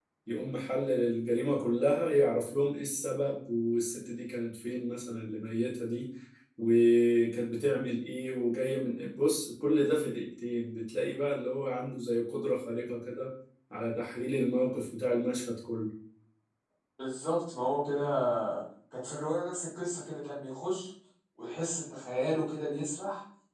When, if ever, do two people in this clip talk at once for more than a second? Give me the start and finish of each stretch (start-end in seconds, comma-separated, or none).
none